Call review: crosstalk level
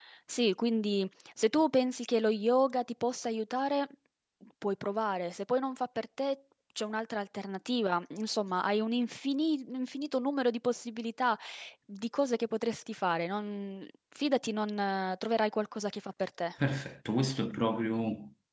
none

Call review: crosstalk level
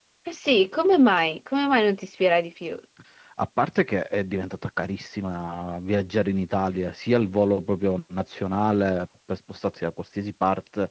none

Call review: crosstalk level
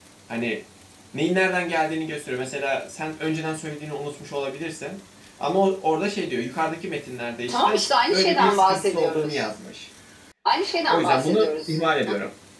present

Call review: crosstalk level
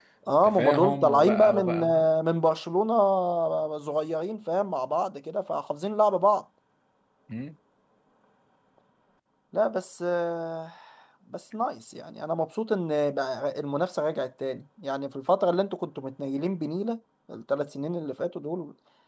present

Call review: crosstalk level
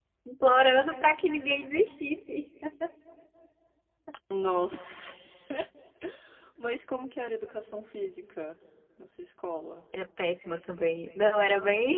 none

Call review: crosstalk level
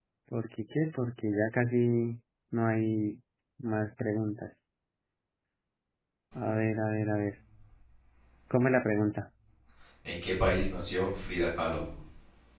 none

